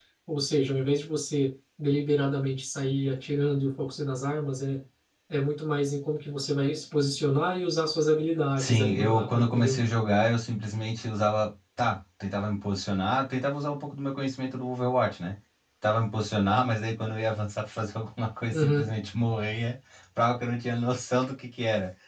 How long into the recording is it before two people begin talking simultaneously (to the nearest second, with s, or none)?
9 s